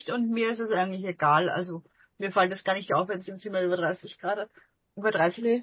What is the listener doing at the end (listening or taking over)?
listening